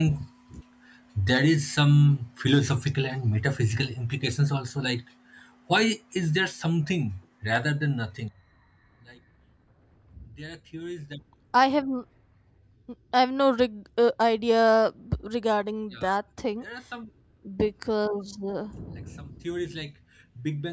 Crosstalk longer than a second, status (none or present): none